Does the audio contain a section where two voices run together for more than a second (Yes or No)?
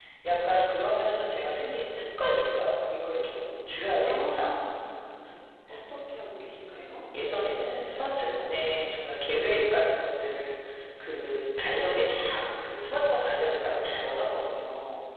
No